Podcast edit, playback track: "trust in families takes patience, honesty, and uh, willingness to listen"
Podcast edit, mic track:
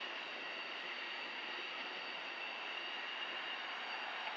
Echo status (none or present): none